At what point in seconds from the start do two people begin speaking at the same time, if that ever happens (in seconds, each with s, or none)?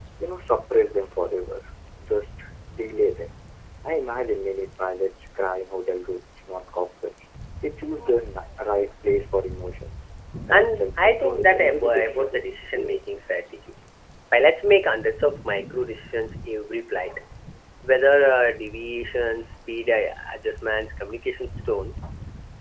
10.5 s